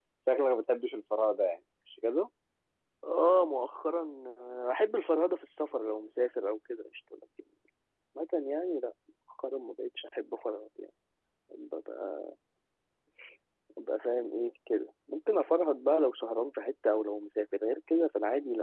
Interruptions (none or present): none